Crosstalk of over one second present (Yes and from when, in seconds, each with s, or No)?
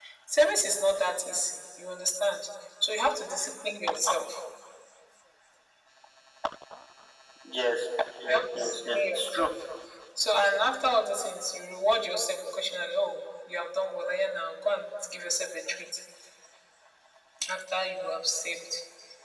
Yes, from 8.3 s